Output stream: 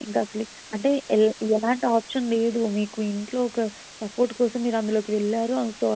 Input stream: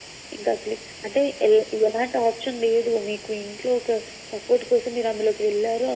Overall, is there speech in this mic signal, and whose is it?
echo only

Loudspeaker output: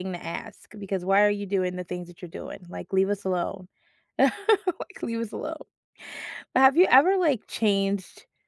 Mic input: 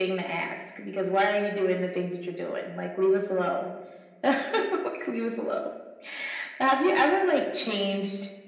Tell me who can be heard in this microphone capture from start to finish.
echo only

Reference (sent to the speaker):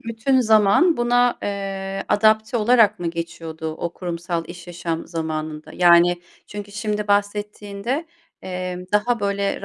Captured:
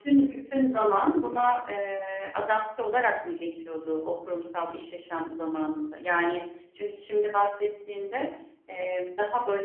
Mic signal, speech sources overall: echo only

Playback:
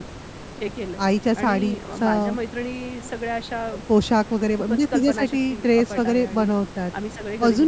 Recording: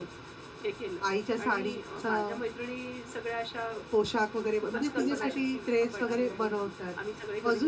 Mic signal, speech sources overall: both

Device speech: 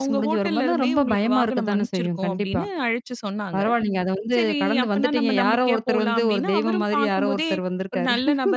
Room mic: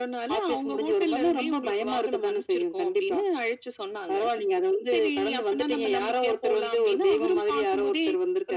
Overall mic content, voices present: echo only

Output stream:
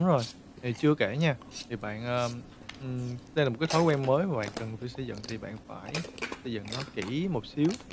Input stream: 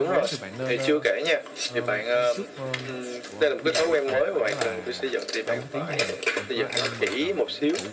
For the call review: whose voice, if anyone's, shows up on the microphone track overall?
both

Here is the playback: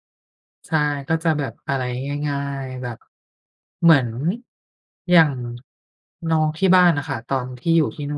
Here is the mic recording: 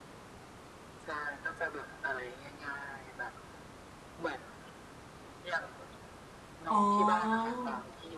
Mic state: both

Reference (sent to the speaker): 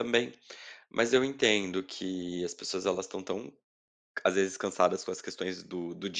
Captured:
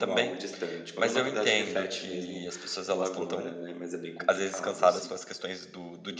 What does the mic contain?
both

